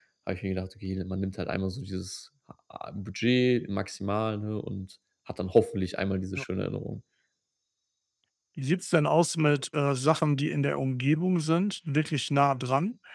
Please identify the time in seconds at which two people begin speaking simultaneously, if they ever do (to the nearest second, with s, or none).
none